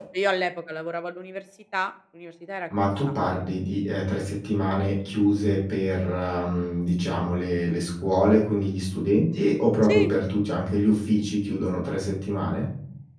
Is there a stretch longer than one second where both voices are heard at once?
No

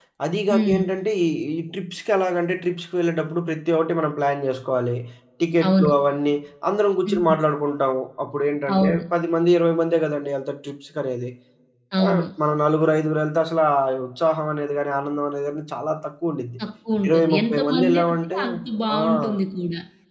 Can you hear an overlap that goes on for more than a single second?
Yes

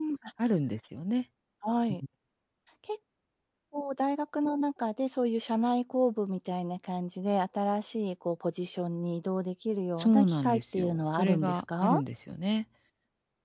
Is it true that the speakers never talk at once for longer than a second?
No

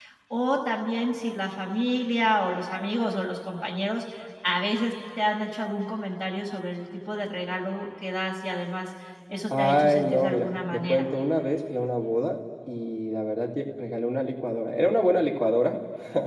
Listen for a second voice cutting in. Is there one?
Yes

